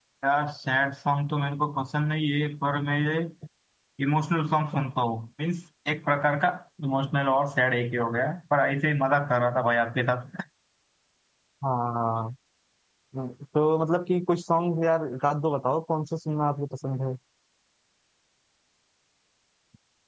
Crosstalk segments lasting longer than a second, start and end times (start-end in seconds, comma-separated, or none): none